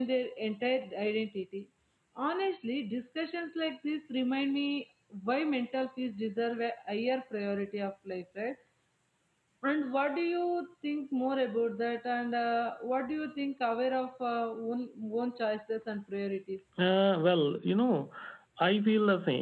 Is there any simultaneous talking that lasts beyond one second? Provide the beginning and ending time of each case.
none

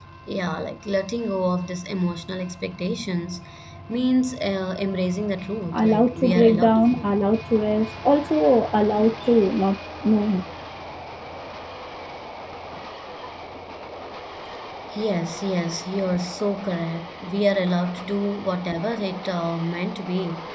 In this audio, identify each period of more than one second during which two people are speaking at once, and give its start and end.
5.7-7.0

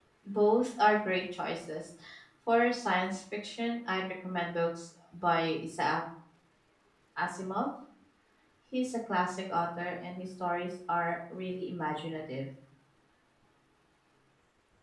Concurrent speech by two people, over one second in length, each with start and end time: none

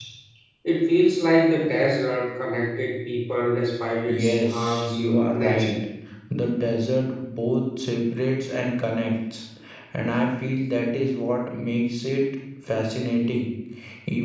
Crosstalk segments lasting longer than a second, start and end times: 4.0-5.7

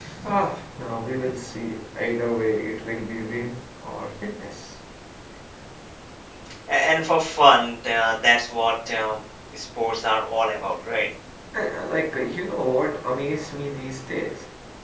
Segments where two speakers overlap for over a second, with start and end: none

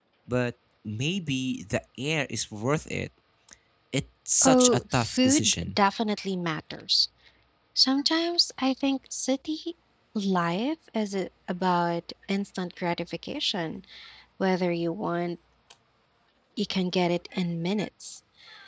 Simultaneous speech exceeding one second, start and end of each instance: 4.4-5.8

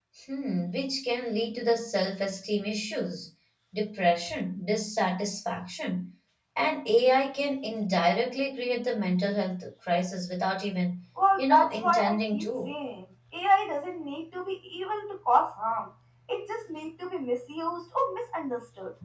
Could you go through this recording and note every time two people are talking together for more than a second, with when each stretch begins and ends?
11.4-12.7

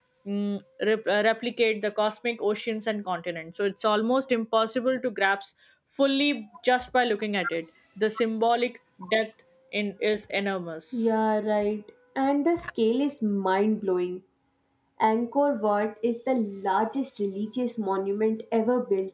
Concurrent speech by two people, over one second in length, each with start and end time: none

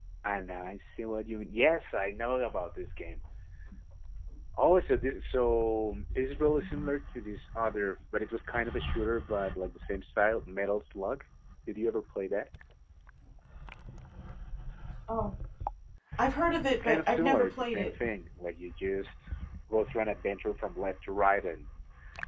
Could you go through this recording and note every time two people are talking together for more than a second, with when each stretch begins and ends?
16.7-17.9

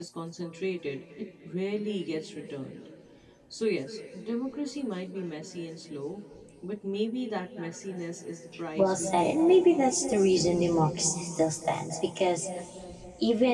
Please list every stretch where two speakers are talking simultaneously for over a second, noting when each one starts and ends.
8.8-10.0

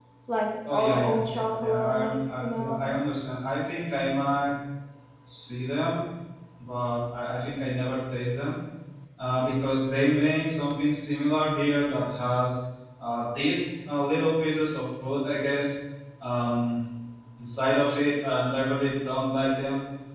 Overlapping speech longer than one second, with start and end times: 0.7-2.9

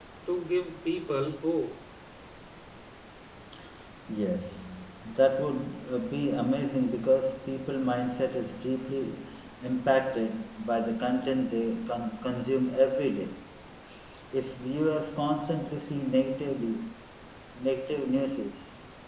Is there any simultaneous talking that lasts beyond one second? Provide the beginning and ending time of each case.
none

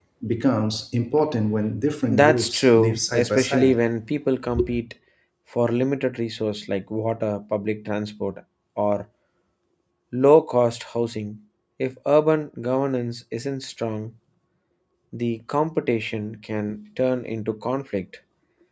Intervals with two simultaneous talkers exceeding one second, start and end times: 2.1-3.8

